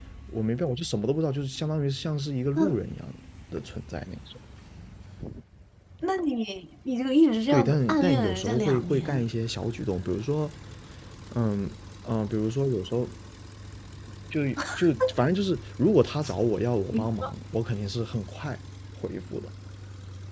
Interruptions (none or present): present